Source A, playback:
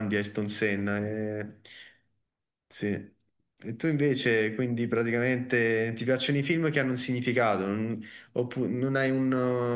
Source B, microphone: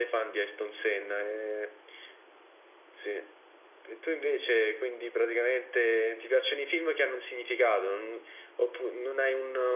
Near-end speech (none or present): none